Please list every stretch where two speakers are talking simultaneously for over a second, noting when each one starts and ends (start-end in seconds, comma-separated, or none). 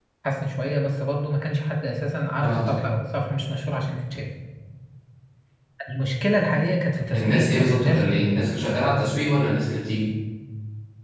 7.1-8.4